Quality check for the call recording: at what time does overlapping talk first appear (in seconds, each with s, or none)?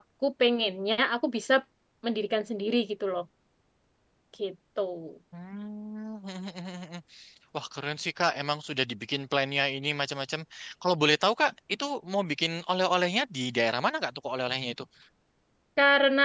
none